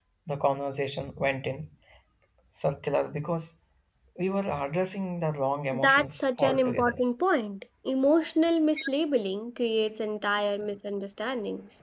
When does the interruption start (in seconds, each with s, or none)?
5.7 s